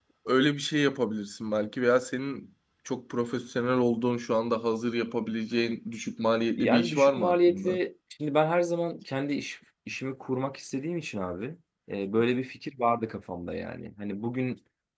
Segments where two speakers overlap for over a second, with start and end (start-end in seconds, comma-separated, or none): 6.6-7.8